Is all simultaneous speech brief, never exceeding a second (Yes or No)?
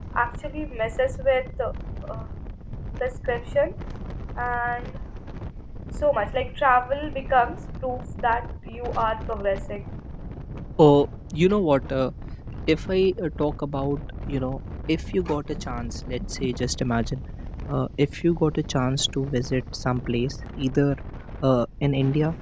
Yes